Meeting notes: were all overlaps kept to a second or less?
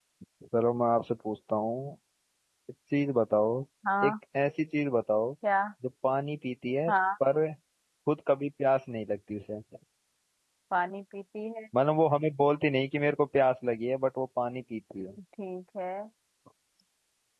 Yes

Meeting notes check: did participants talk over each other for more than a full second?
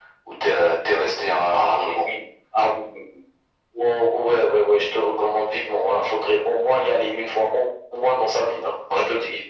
No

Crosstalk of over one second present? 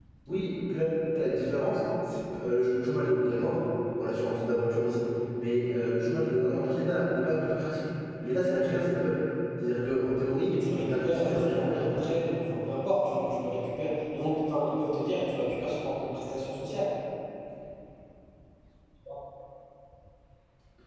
Yes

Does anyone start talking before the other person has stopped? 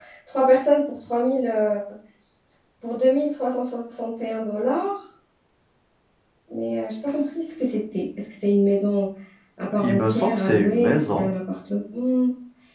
Yes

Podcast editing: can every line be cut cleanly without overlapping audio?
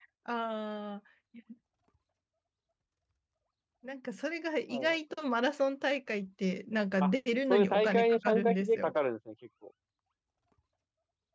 No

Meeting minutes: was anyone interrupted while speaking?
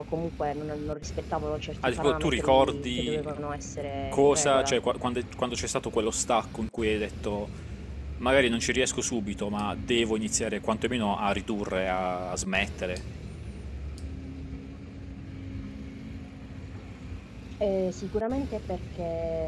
Yes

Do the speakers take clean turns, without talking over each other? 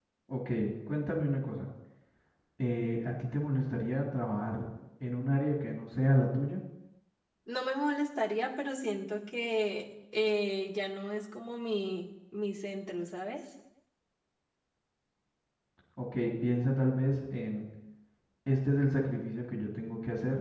Yes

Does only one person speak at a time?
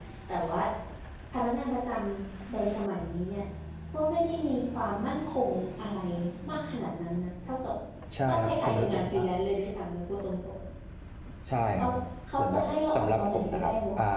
No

